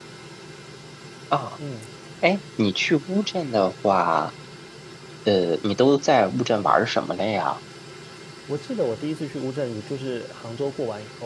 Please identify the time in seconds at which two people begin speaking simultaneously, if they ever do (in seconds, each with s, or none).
none